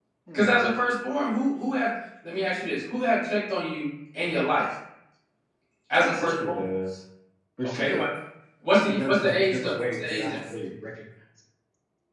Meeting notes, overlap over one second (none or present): present